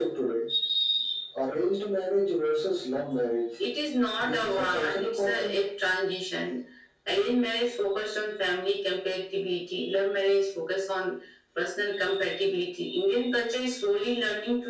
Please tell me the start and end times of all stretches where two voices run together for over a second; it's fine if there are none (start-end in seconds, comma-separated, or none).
4.2-5.6